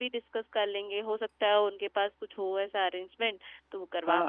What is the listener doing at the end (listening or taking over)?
taking over